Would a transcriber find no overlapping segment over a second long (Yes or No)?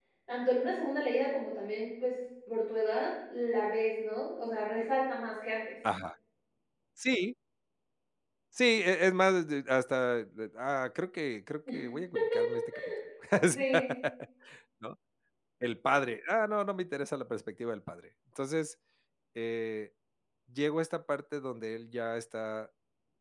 Yes